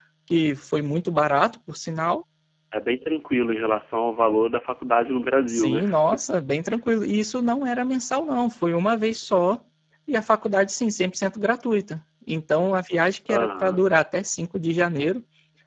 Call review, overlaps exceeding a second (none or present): none